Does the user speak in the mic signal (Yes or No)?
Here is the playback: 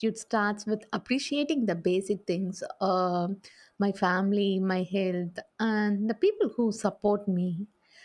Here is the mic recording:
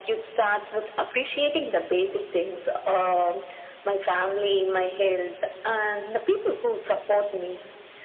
No